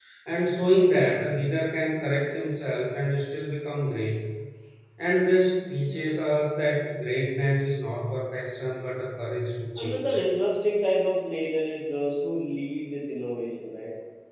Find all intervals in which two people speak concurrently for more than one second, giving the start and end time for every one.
none

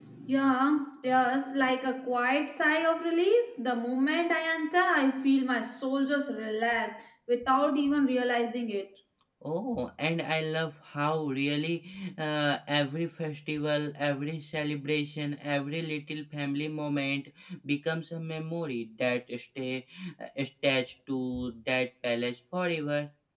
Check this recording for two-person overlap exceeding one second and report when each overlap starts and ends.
none

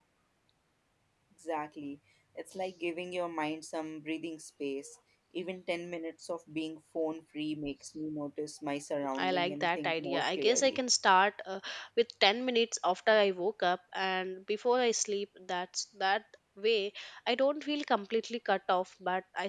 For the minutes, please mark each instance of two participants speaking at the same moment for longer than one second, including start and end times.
9.2-10.8

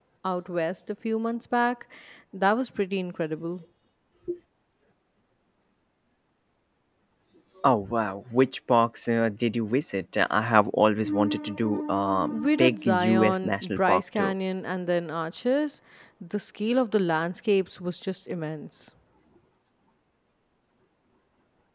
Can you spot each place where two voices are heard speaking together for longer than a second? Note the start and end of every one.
12.3-14.3

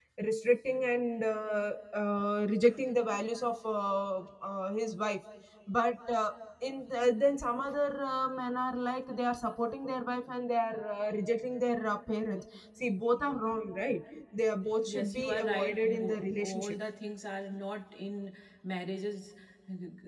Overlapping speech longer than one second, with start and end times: 14.9-16.8

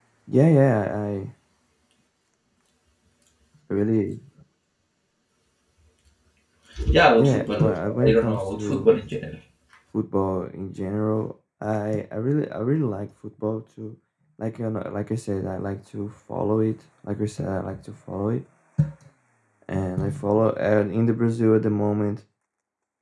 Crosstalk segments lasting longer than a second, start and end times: 7.2-8.9

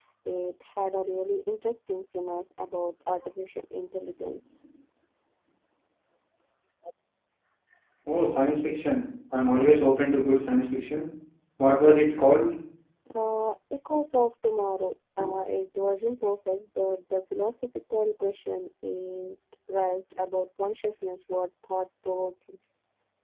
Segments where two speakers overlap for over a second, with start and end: none

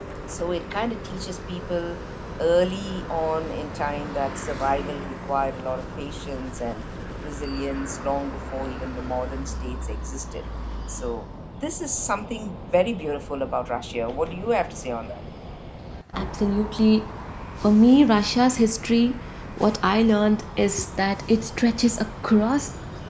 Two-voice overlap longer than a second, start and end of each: none

